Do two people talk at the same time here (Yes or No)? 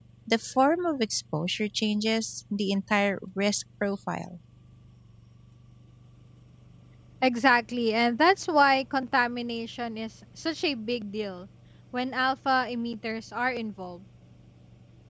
No